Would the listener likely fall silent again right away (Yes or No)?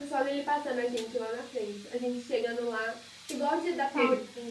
Yes